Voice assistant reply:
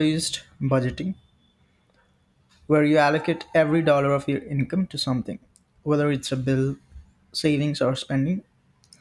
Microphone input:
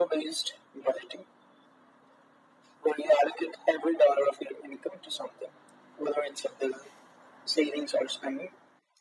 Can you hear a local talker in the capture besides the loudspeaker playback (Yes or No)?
No